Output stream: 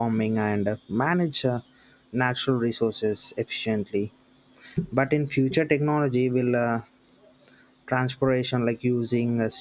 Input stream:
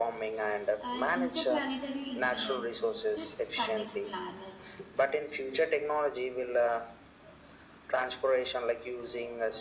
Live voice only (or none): And interplanetary internet just connects planets.